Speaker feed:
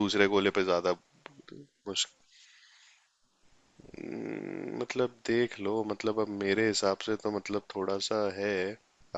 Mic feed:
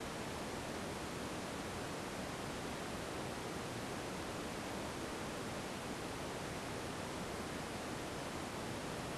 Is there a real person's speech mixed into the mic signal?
No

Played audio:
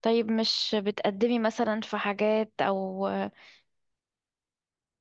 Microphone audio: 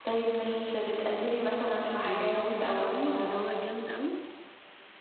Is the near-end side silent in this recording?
No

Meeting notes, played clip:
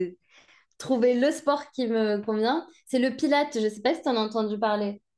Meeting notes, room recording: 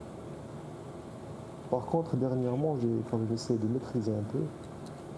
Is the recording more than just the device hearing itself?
Yes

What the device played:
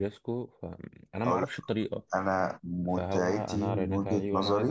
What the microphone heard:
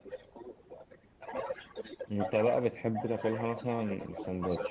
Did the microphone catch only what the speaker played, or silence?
No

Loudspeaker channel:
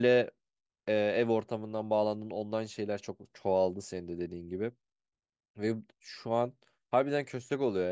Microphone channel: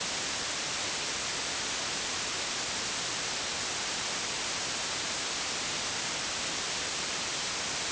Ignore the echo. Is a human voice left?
No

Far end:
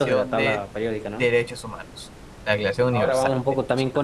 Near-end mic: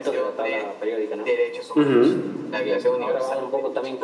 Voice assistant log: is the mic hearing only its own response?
No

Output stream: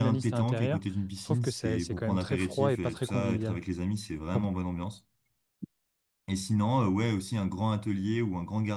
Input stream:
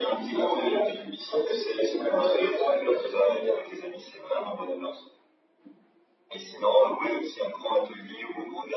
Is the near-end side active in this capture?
No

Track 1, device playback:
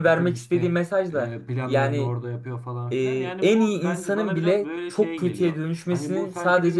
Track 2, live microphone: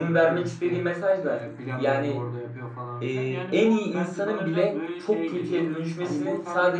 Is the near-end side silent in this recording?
Yes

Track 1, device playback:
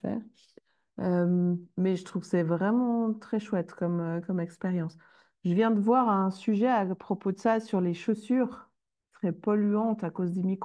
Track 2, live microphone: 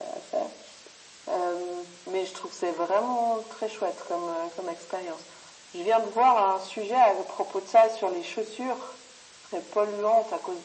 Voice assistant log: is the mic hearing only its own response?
Yes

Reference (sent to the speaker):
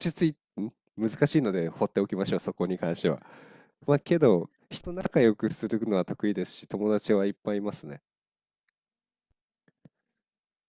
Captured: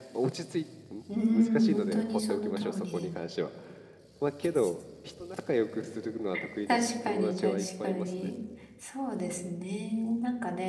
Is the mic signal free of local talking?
No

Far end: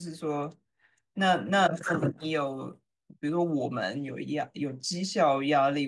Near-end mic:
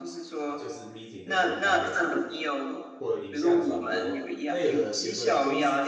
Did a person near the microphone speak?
Yes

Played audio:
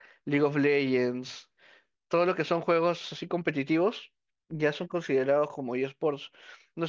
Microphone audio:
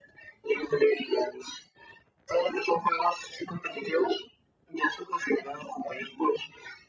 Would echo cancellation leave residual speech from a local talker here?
No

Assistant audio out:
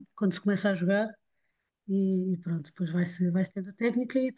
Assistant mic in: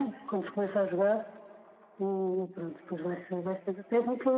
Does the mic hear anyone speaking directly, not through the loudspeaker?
No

